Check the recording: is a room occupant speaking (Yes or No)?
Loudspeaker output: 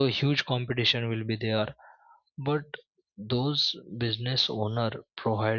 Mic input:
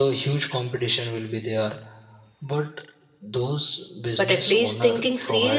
Yes